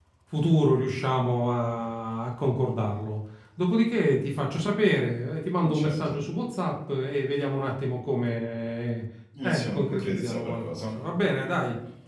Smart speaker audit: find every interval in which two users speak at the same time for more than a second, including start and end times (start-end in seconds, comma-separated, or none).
9.4-10.9